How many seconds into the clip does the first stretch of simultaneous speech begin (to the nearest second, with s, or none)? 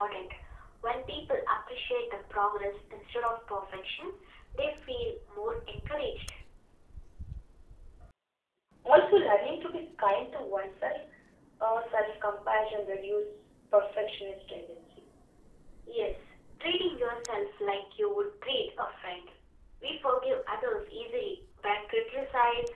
none